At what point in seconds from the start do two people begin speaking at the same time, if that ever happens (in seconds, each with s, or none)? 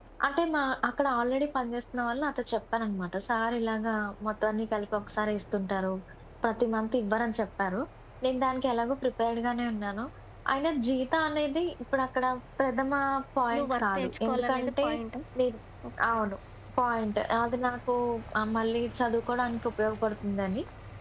13.5 s